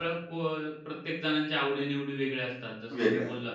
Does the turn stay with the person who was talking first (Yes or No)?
Yes